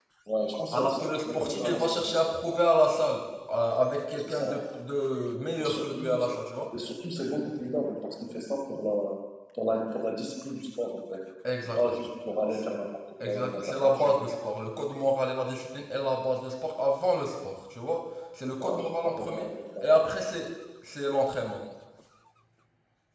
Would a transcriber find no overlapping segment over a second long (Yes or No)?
No